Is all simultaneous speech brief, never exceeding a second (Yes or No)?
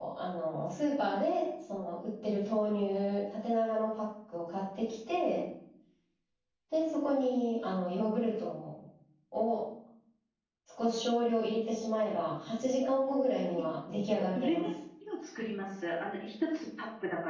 Yes